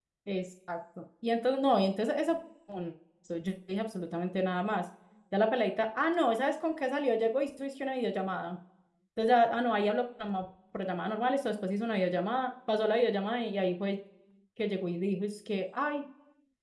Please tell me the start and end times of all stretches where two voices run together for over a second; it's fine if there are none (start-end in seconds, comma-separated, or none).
none